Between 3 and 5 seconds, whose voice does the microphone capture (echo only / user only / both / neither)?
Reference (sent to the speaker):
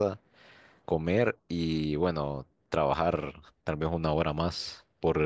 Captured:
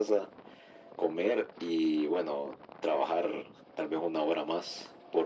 echo only